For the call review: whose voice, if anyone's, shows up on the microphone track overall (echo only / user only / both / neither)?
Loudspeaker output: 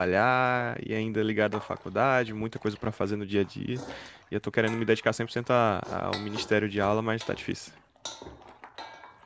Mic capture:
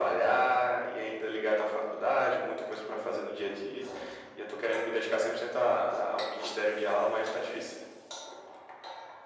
echo only